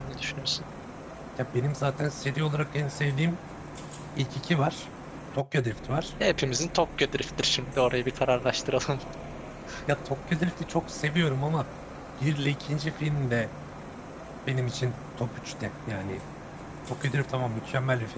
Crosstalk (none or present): none